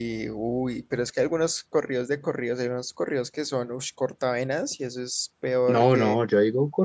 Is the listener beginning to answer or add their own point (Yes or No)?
Yes